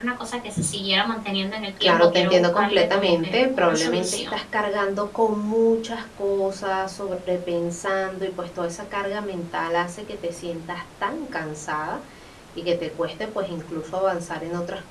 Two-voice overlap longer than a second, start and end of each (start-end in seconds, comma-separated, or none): 1.8-4.3